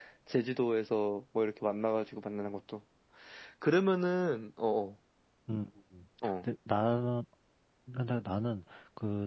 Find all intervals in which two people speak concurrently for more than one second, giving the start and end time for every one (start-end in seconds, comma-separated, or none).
none